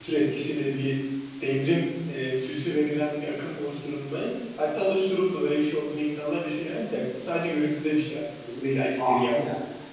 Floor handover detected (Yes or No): Yes